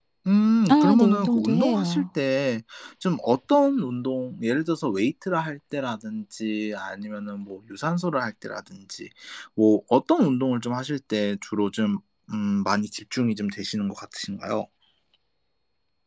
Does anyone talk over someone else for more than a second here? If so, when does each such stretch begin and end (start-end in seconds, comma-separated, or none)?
0.7-2.0